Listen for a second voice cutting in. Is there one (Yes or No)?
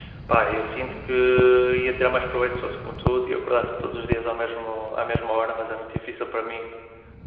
No